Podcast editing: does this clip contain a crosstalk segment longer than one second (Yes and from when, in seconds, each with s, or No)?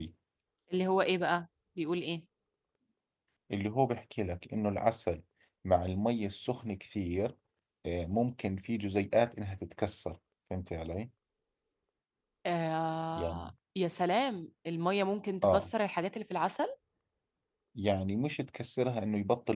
No